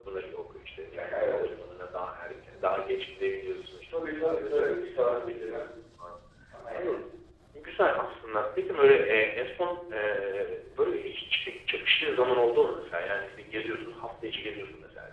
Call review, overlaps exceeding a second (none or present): present